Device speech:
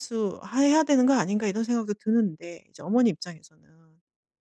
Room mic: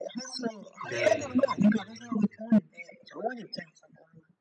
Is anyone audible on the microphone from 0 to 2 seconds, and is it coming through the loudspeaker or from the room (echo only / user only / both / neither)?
both